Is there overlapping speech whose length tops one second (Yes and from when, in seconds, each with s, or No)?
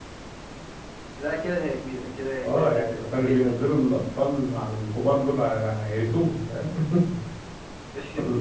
Yes, from 2.4 s